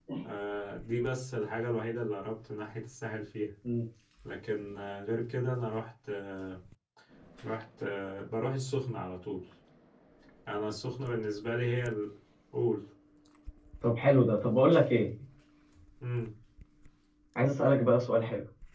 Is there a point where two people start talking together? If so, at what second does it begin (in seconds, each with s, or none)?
none